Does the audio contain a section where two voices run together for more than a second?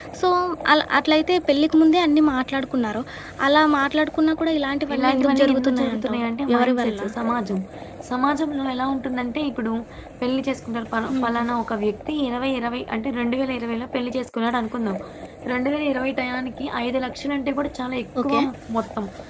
Yes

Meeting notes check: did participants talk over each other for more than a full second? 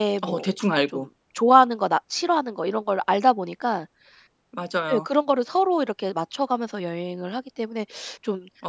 No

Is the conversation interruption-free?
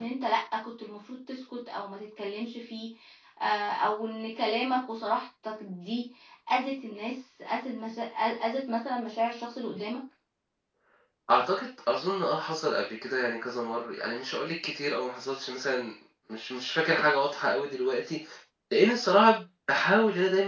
Yes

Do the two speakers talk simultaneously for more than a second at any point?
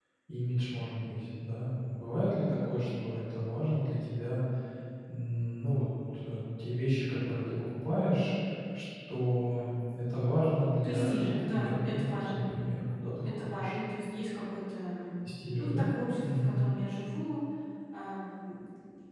Yes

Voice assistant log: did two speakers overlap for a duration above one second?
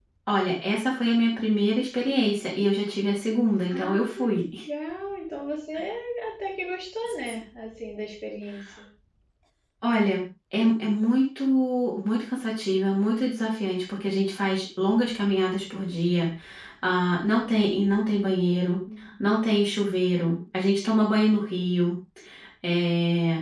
No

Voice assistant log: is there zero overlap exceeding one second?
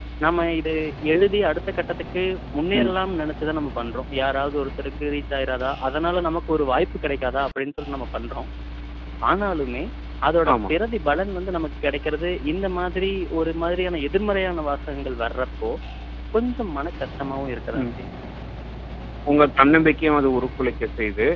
Yes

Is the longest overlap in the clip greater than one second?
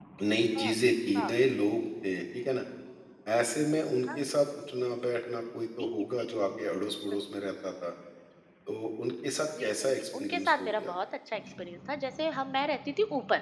Yes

